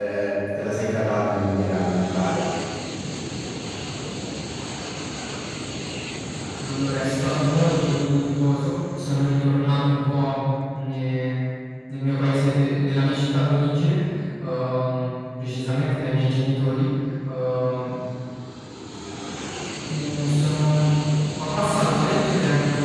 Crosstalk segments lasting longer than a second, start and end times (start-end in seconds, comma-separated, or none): none